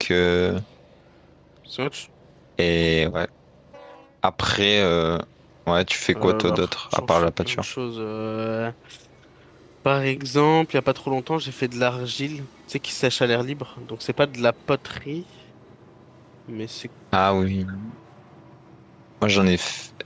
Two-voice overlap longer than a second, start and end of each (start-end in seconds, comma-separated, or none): 6.2-7.6